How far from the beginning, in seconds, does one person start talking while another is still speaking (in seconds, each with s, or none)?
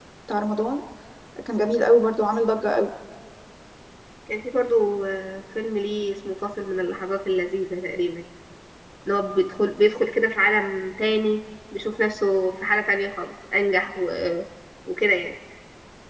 none